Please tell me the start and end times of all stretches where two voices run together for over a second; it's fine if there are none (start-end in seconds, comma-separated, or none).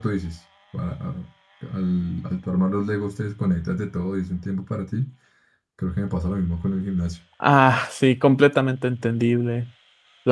none